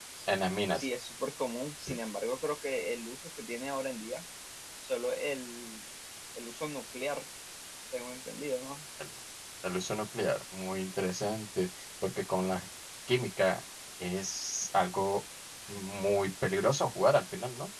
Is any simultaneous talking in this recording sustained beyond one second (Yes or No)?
No